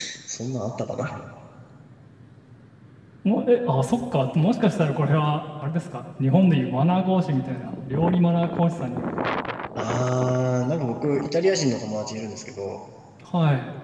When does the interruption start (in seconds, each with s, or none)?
none